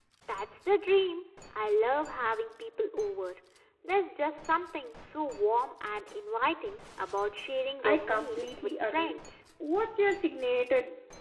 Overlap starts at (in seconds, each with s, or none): 7.8 s